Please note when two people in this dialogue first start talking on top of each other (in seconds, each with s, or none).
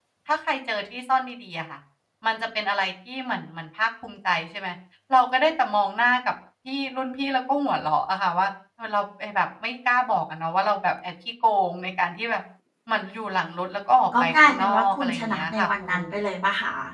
14.1 s